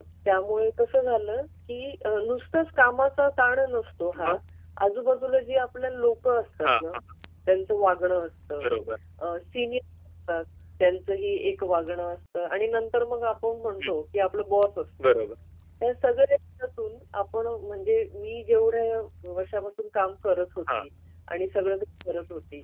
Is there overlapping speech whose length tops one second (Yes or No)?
No